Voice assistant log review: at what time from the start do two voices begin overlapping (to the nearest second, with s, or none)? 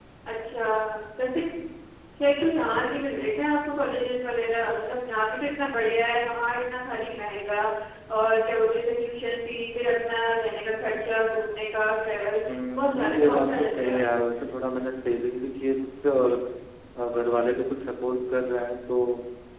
12 s